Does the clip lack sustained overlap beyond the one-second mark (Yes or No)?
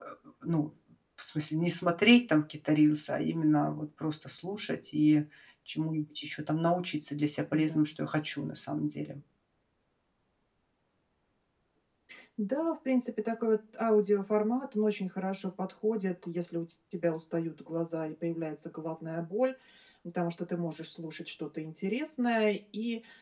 Yes